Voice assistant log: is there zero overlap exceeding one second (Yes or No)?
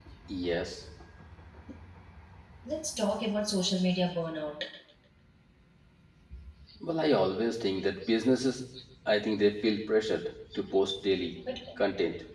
Yes